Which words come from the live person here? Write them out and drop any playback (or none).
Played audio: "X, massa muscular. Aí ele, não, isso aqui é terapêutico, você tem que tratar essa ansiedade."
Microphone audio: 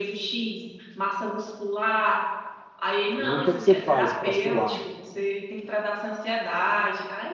E o que é que você faz para suar,